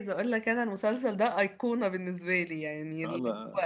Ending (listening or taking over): listening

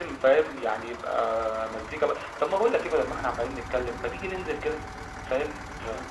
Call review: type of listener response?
listening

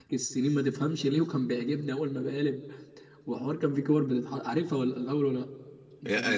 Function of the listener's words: taking over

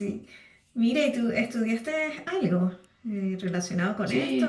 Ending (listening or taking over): taking over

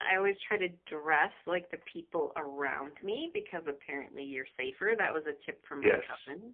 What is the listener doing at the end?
taking over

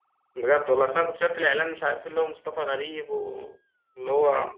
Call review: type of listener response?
listening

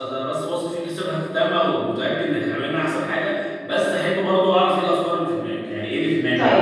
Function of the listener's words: taking over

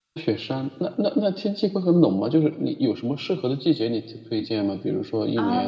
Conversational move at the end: taking over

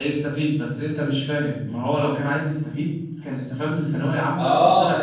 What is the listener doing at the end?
taking over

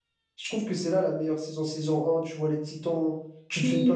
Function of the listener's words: listening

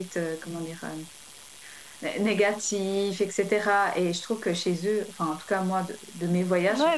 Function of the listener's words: taking over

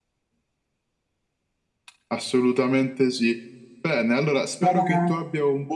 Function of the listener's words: listening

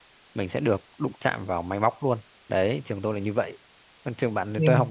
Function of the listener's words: listening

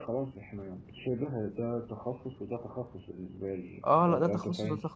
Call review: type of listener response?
taking over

